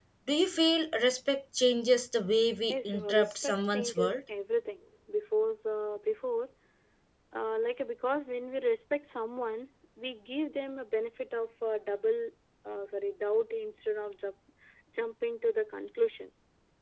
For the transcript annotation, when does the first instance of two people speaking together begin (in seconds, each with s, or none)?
2.7 s